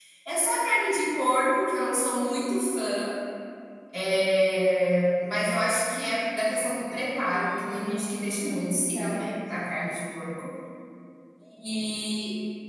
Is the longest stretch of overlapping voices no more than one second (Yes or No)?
No